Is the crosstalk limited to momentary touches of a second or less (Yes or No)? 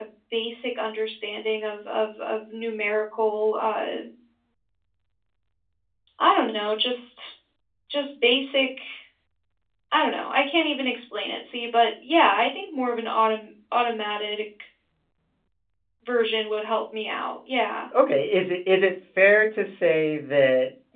Yes